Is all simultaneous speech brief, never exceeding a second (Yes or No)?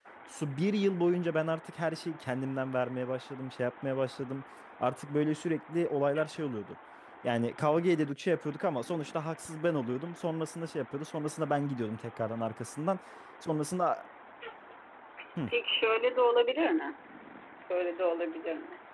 Yes